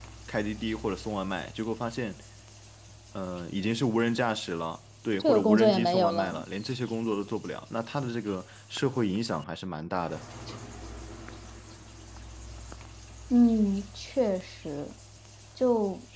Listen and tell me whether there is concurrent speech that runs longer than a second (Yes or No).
Yes